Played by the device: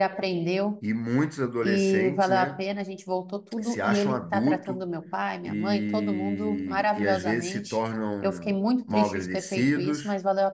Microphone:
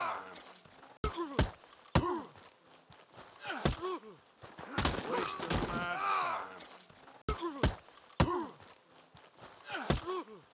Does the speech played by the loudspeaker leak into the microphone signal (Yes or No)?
No